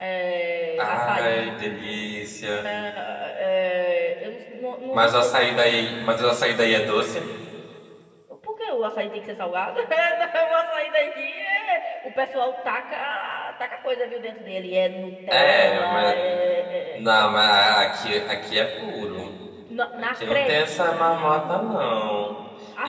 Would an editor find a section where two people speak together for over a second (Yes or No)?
Yes